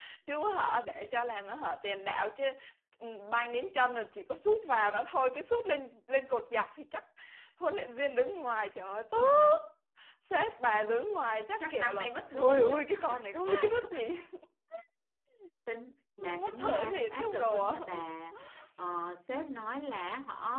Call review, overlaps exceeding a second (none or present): present